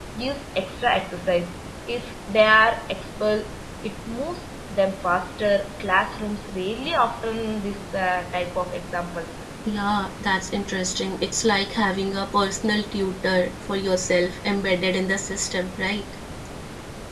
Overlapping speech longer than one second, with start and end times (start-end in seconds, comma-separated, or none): none